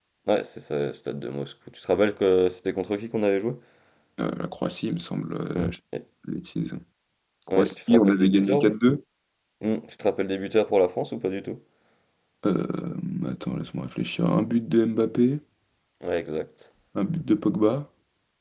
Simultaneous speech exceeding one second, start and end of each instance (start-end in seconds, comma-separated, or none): 7.5-8.7